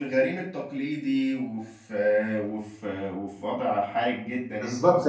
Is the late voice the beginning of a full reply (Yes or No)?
Yes